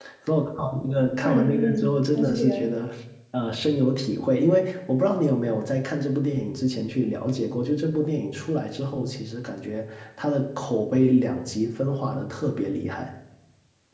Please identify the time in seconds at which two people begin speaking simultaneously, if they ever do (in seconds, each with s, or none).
1.2 s